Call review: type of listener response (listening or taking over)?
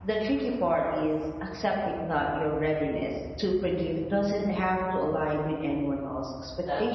taking over